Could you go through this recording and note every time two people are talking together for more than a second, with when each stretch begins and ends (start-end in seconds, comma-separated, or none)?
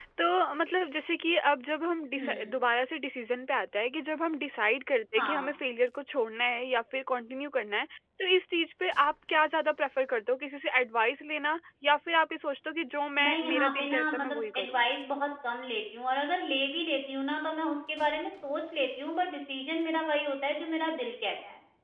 13.2-14.8